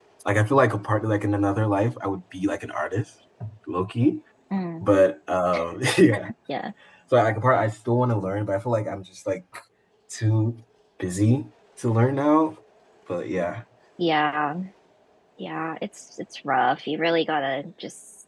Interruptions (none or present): none